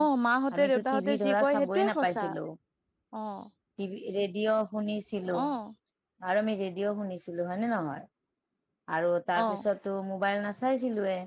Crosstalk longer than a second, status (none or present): present